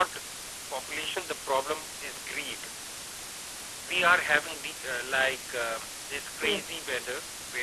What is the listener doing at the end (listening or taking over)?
listening